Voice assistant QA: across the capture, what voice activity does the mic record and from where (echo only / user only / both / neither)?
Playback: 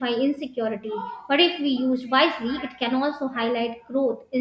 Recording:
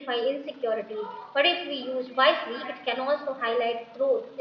echo only